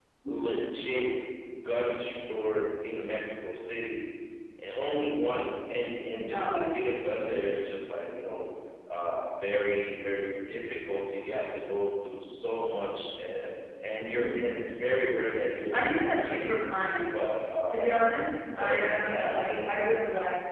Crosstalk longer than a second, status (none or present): present